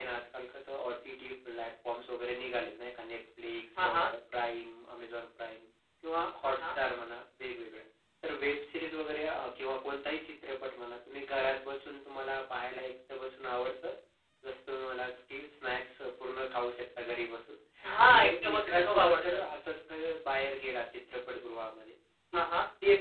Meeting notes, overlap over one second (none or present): present